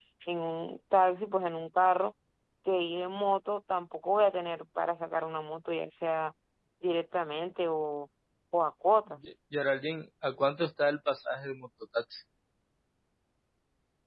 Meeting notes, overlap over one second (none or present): none